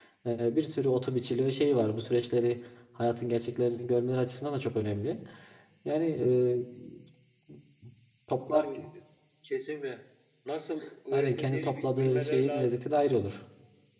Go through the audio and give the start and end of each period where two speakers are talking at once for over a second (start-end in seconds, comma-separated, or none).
11.1-12.8